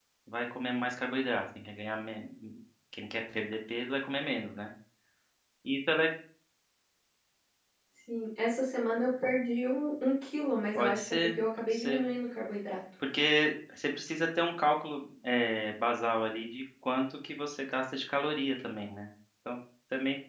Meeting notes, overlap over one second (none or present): present